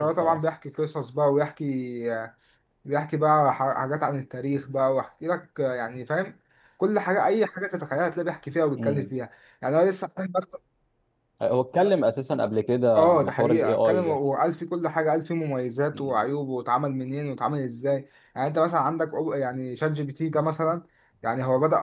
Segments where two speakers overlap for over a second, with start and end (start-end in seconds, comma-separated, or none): 13.0-14.2